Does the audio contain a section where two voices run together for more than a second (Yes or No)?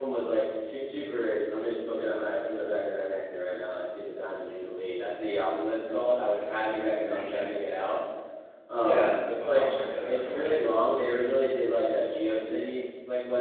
Yes